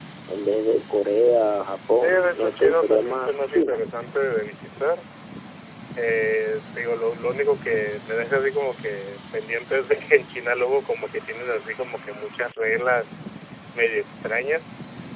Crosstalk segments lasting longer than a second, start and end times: 2.0-3.8

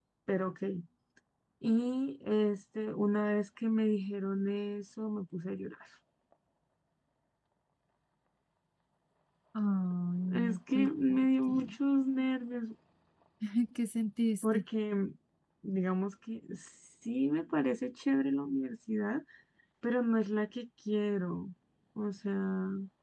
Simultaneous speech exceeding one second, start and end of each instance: 10.3-11.7

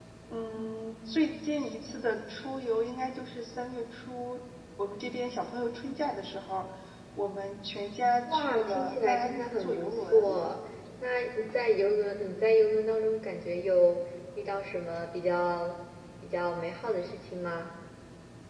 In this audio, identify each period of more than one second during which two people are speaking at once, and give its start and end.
8.2-10.4

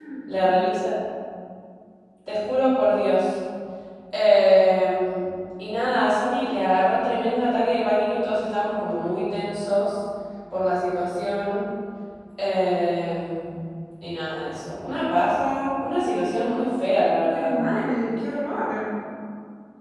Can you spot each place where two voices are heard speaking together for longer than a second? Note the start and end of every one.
none

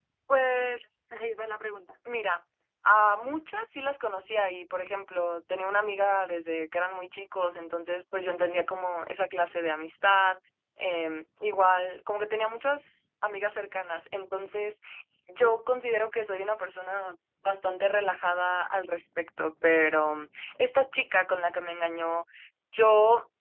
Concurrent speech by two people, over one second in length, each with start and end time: none

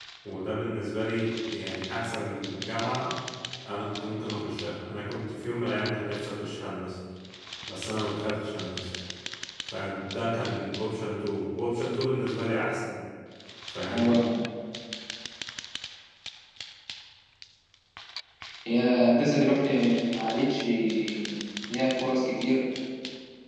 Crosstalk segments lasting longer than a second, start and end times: none

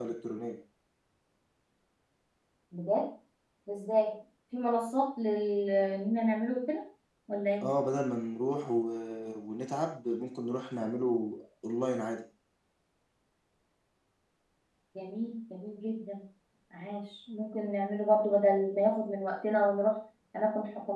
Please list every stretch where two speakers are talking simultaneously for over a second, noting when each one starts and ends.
none

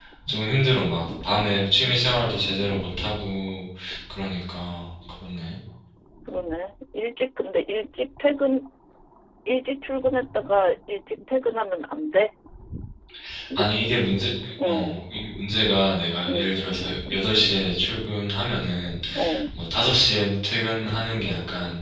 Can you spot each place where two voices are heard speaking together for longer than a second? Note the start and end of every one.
none

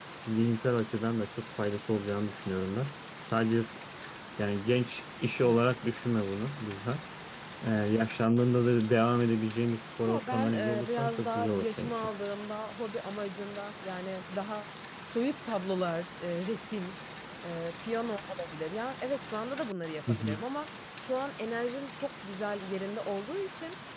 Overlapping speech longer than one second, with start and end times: 10.1-12.1

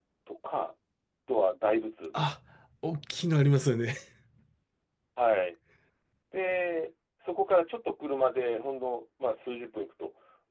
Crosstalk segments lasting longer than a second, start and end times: none

